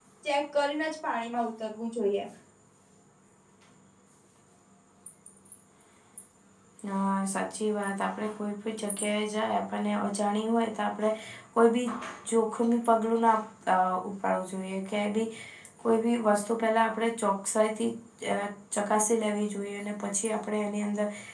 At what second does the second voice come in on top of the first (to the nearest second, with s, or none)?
none